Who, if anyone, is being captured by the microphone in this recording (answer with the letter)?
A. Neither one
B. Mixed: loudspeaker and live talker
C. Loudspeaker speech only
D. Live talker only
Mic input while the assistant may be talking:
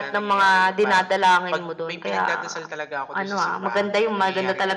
C